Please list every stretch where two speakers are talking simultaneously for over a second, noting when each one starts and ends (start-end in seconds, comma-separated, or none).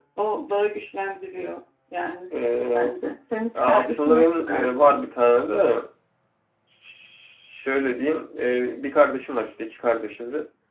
3.5-5.0